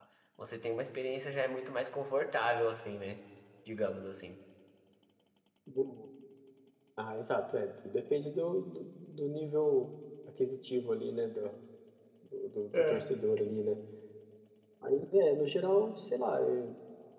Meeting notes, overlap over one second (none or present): none